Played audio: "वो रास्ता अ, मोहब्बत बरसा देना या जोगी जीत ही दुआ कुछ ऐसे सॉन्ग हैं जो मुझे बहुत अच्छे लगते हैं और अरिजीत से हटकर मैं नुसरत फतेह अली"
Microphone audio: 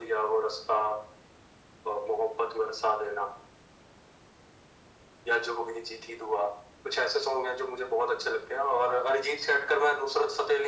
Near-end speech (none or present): none